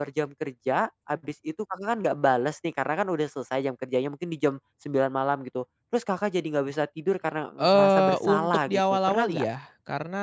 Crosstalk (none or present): present